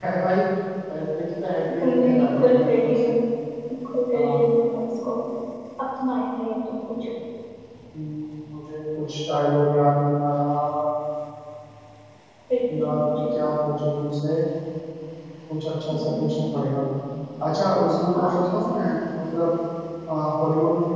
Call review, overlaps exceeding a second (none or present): present